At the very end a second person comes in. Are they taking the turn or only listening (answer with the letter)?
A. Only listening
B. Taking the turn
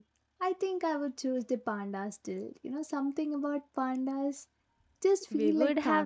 B